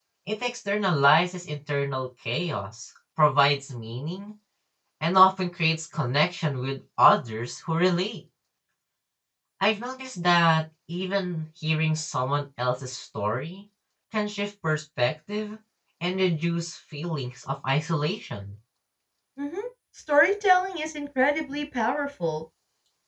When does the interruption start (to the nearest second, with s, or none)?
none